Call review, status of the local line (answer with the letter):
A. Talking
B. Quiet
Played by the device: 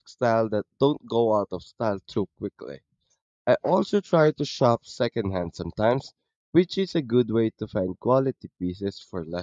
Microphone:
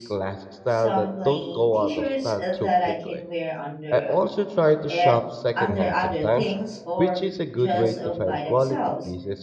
A